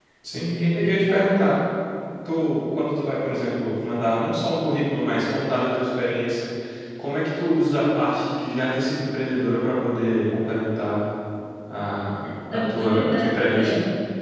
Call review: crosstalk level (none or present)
present